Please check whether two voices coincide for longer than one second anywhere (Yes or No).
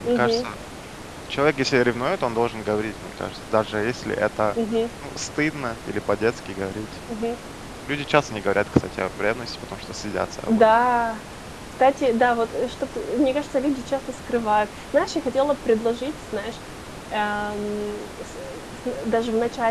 No